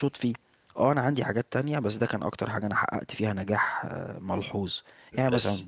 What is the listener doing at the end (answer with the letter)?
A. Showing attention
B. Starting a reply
A